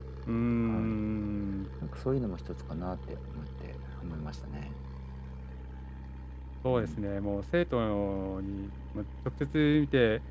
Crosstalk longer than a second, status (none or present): none